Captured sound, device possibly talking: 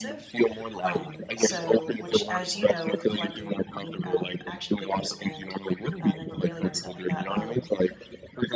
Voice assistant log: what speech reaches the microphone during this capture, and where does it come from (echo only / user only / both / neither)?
both